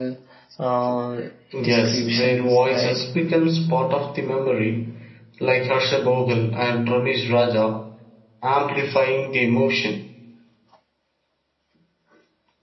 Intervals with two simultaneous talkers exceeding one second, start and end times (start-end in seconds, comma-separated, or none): 1.6-3.0